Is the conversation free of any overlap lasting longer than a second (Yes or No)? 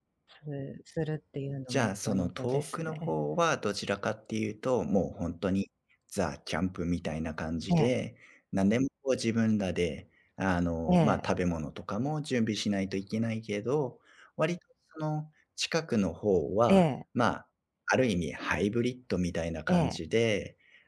No